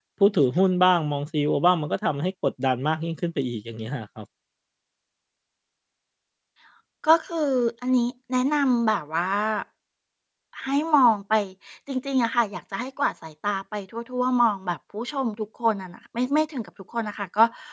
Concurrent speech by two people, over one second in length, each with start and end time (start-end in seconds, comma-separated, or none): none